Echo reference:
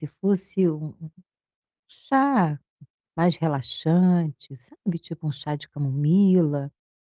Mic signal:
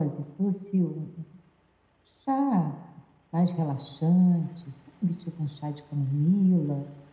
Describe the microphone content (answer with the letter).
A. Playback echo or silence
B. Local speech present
A